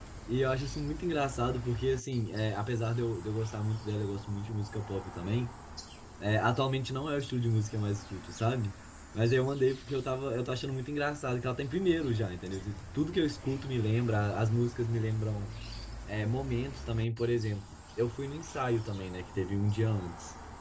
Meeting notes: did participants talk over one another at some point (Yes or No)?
No